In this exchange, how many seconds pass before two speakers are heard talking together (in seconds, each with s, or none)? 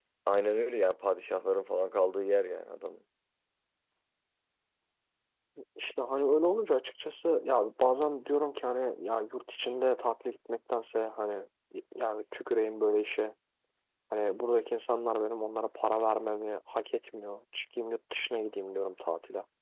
none